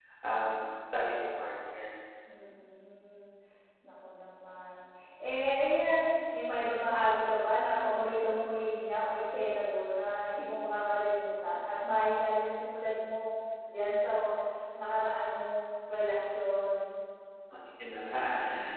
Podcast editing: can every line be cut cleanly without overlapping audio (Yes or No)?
Yes